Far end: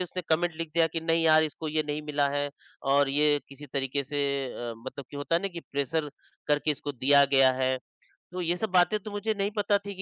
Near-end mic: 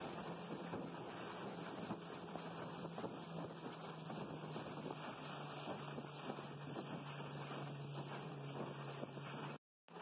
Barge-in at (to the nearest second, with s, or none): none